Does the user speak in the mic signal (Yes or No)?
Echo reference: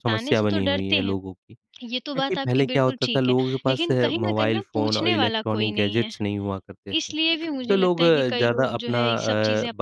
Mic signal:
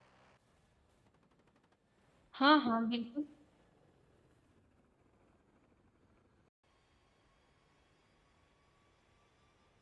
Yes